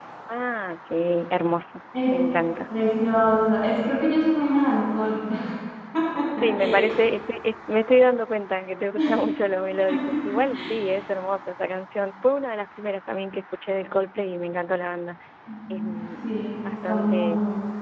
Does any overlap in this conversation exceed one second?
Yes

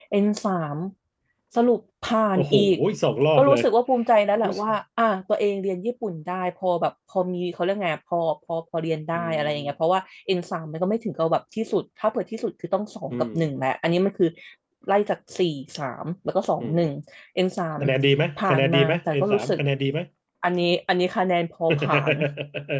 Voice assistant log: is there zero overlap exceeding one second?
No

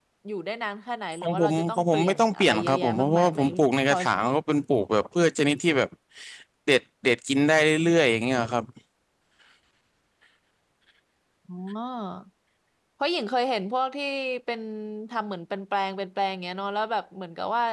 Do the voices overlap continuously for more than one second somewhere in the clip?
Yes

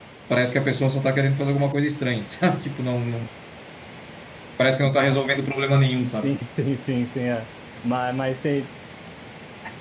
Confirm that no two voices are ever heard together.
Yes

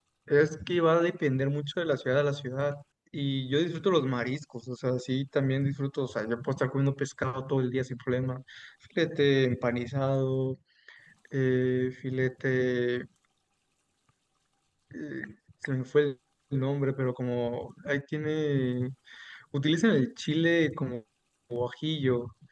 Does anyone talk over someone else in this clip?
No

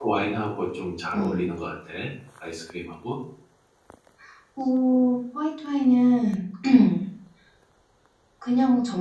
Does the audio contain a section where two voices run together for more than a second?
No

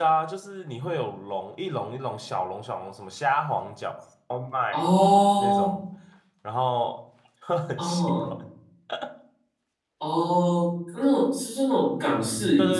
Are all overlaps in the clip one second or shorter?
Yes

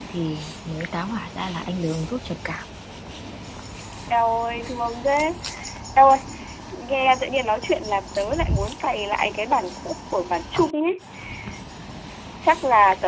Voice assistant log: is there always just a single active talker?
Yes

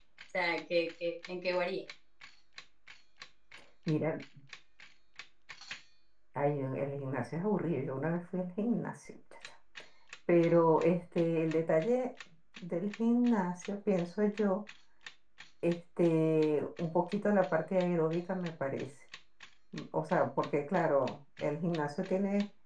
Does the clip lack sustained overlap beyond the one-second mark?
Yes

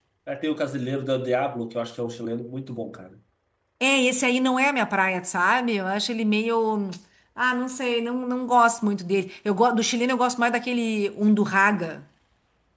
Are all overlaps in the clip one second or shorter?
Yes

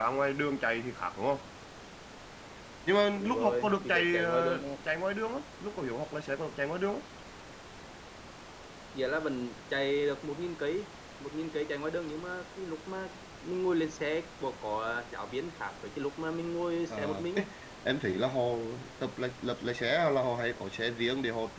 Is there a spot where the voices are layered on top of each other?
Yes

